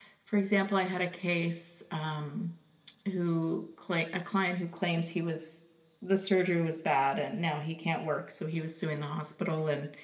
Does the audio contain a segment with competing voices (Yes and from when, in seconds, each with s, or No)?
No